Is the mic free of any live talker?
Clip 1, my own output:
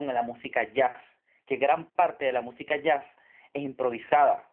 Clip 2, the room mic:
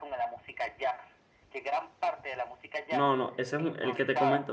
No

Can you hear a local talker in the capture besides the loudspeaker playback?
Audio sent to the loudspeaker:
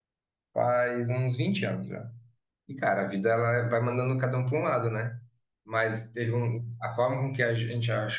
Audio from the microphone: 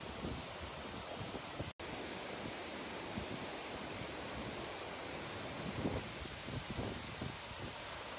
No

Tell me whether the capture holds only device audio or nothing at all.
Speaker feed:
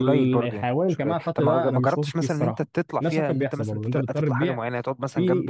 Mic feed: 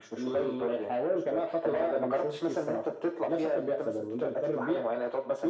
Yes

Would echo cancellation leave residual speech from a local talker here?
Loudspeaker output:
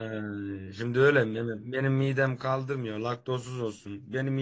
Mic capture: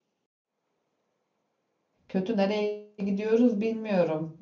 Yes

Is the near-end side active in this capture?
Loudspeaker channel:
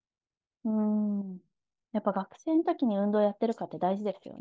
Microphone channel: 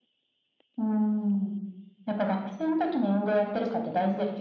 No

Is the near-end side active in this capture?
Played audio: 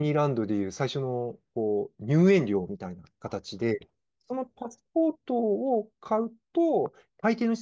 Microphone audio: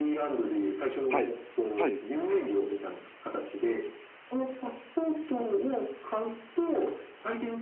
Yes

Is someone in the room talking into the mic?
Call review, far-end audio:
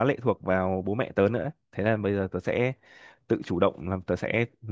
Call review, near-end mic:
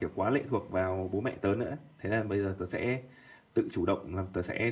No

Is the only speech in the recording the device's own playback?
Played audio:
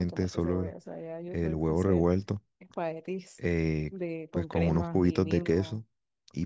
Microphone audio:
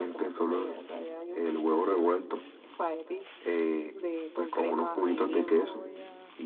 No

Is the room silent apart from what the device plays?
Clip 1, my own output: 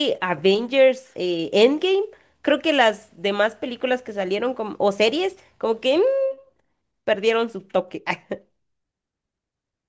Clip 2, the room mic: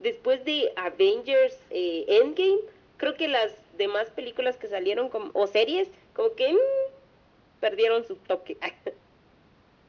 Yes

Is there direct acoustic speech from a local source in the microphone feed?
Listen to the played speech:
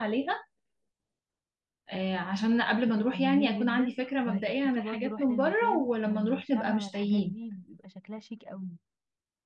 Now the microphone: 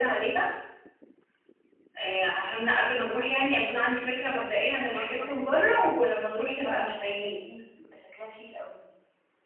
No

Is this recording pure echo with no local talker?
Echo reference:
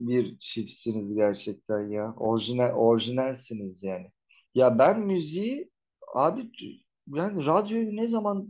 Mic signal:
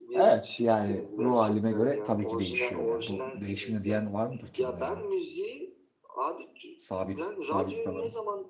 No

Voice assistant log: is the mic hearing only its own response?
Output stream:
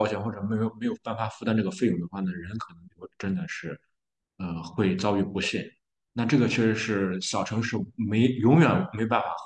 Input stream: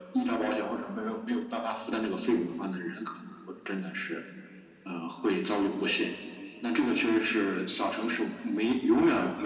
Yes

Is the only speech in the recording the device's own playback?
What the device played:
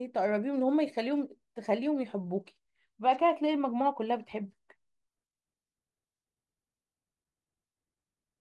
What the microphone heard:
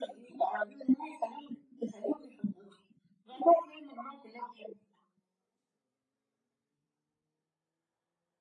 Yes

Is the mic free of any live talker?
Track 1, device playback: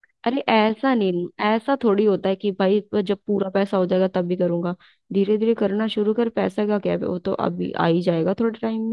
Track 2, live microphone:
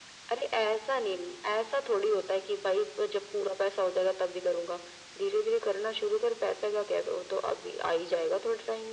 Yes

